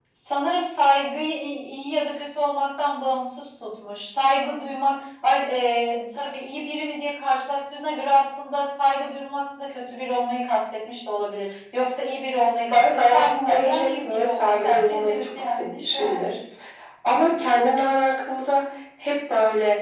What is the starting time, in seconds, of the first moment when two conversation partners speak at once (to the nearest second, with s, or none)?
13 s